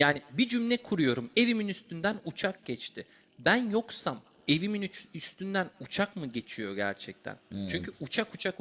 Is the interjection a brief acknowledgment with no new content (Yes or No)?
Yes